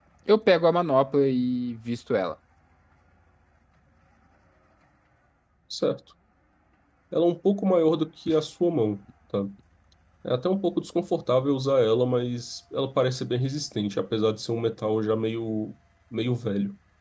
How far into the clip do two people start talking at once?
none

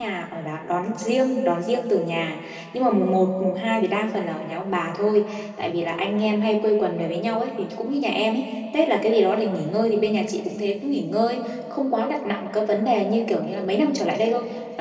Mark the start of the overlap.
none

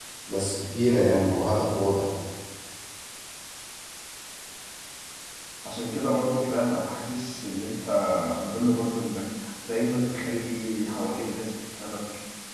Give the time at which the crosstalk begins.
none

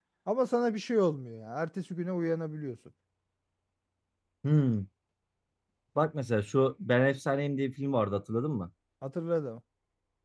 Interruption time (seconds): none

